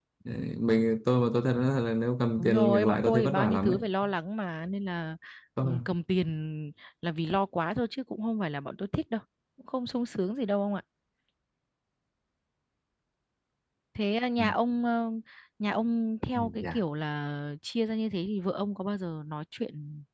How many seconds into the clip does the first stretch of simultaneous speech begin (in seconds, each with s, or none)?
2.4 s